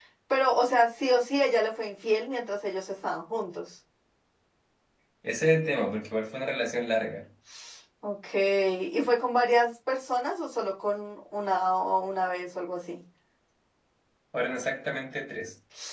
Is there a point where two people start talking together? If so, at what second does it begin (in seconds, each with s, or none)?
none